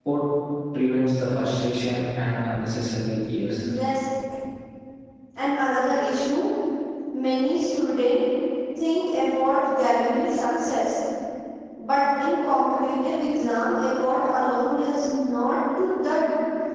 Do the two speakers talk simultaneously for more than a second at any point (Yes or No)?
No